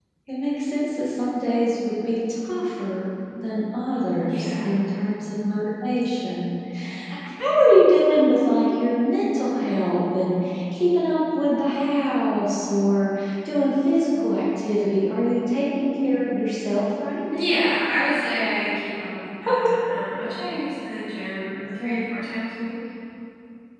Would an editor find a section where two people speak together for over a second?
No

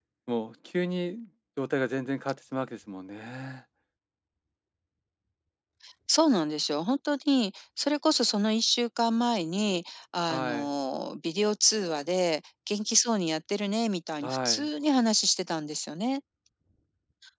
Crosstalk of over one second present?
No

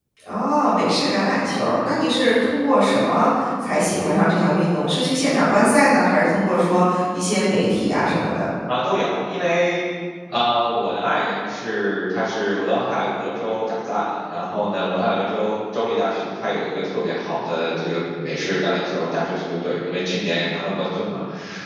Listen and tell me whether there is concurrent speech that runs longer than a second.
No

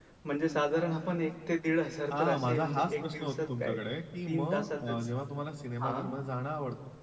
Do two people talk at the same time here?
Yes, from 2.1 s

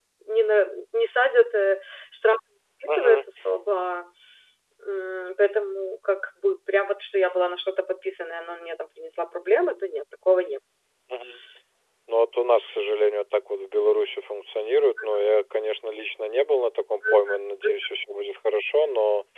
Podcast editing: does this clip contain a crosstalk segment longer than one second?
No

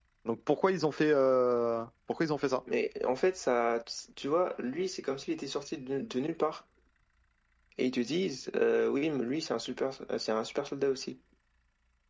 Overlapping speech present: No

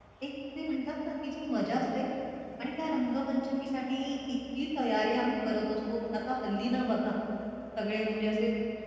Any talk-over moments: No

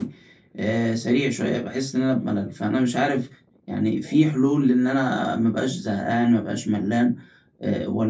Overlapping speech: No

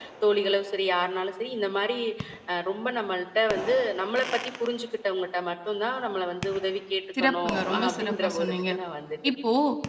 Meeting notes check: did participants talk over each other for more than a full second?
Yes, from 7.2 s

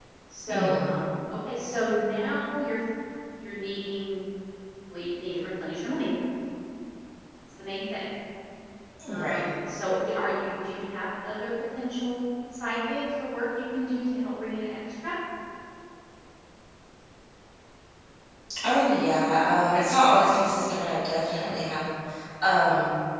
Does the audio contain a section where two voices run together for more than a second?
No

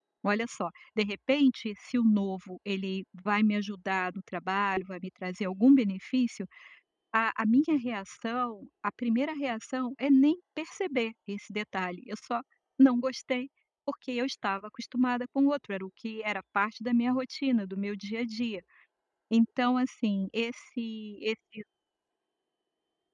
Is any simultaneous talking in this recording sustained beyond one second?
No

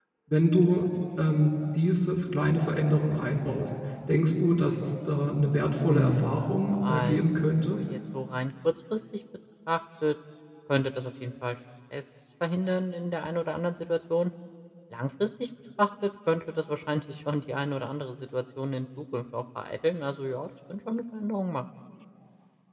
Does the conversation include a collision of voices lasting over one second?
Yes, from 5.9 s

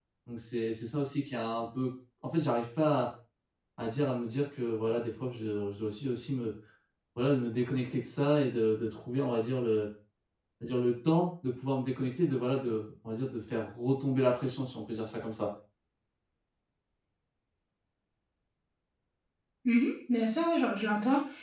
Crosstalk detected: No

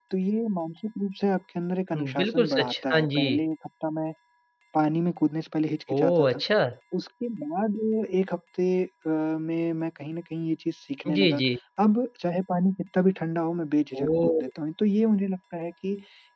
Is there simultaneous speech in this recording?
Yes, from 1.9 s

